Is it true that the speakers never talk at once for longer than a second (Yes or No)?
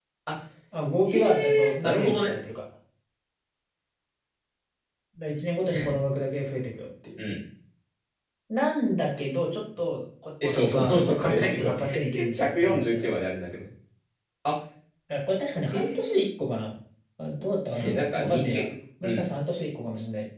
No